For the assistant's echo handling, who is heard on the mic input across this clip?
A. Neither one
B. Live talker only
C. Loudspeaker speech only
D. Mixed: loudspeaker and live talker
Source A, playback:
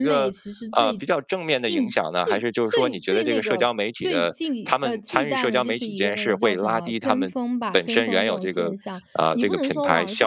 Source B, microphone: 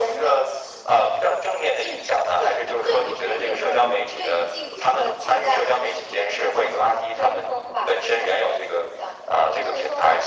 C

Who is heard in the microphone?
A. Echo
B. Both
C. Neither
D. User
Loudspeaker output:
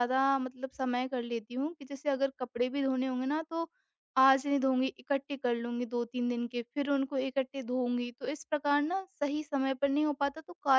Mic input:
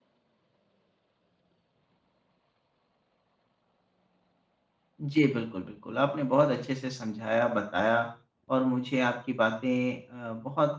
D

